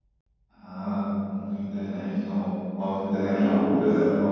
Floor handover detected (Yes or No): No